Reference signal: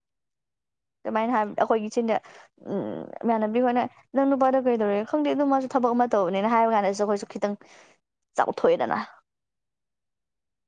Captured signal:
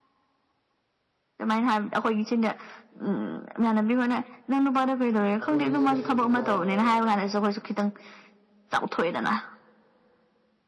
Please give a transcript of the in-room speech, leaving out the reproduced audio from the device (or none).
ꯑꯗꯨꯒꯤ ꯏꯁꯀ꯭ꯔꯤꯟ ꯁꯣꯠꯇꯨꯒ